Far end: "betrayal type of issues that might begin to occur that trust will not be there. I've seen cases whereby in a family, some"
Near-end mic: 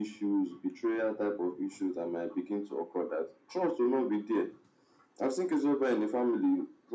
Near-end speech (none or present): none